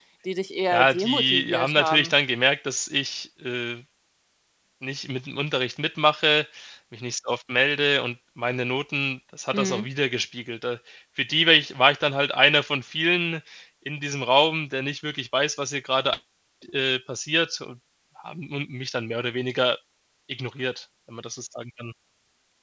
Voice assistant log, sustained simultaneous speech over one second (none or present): present